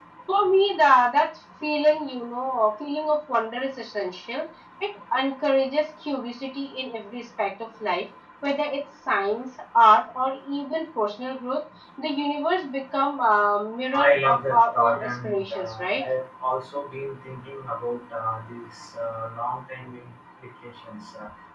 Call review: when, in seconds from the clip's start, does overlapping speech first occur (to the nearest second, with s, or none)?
14 s